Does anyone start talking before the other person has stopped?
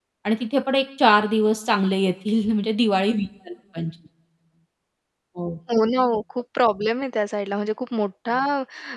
No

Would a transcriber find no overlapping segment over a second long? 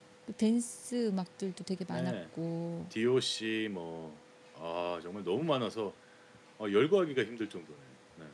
Yes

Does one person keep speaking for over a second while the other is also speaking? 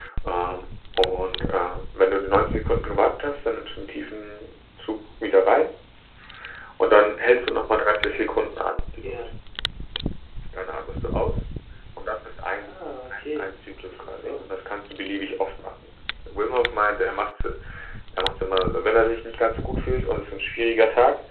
Yes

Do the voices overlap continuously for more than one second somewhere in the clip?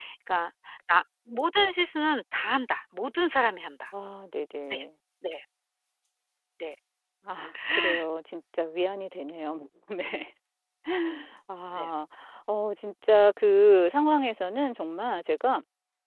No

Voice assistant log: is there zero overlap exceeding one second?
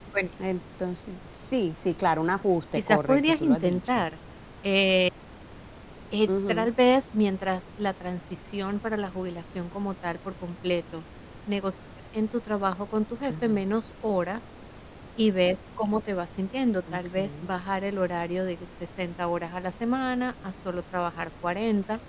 No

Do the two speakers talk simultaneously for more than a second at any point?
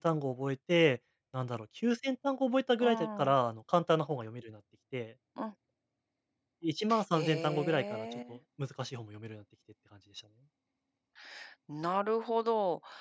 Yes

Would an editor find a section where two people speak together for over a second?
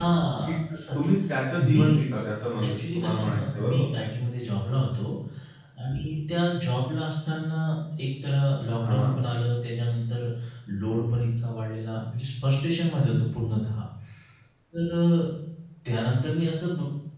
Yes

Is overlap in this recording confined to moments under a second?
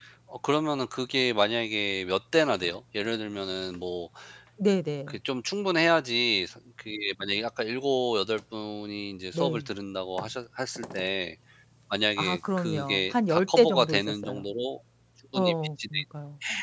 No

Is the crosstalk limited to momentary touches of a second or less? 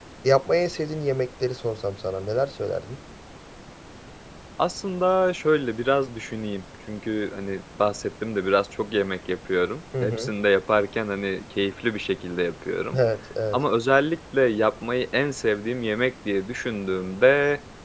Yes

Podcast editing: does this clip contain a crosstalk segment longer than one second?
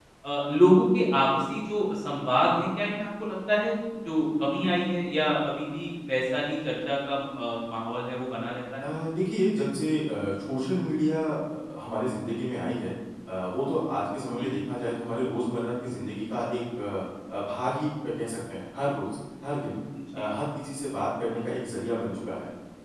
No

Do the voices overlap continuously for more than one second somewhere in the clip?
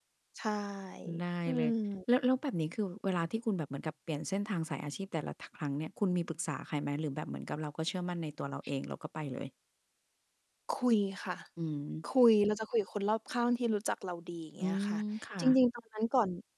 No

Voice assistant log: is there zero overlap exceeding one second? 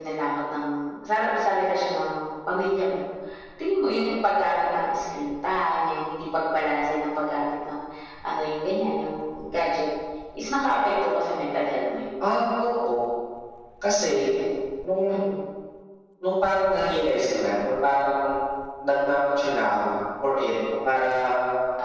Yes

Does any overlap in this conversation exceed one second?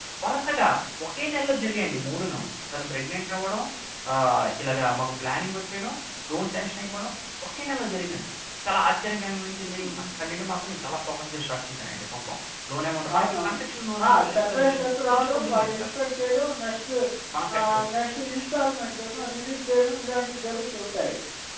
Yes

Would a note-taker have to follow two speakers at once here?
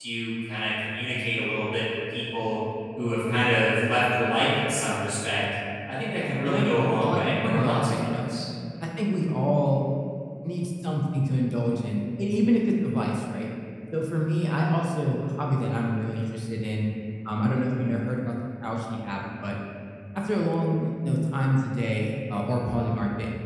Yes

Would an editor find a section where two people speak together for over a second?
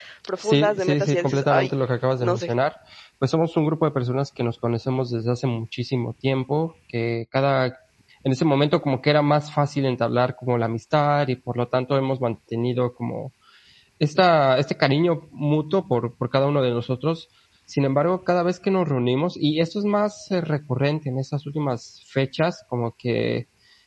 Yes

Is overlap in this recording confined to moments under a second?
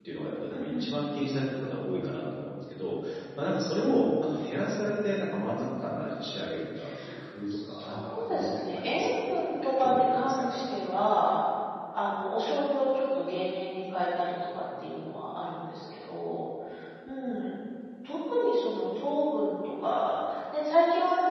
No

